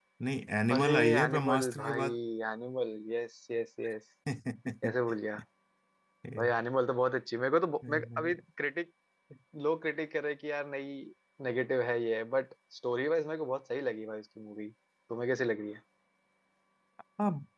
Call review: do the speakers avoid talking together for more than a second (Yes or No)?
No